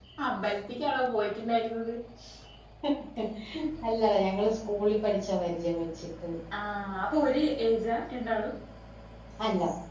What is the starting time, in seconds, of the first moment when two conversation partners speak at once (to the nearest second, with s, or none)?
none